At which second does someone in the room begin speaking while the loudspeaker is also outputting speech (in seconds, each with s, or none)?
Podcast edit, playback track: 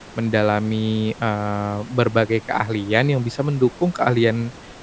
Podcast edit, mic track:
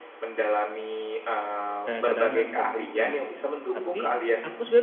1.9 s